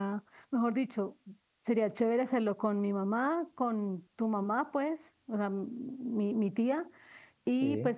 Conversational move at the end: listening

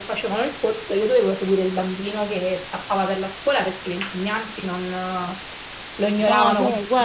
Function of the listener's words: taking over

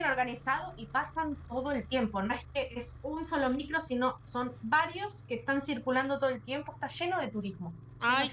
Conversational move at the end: taking over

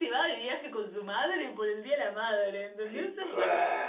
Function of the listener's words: taking over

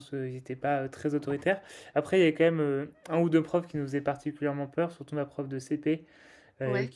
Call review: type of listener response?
listening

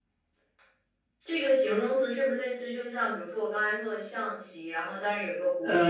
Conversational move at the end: taking over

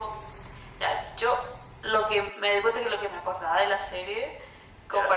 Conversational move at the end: listening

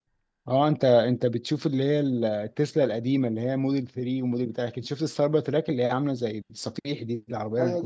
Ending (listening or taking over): taking over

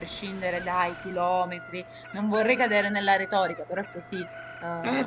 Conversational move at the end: taking over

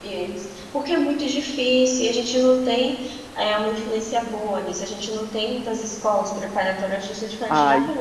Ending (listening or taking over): taking over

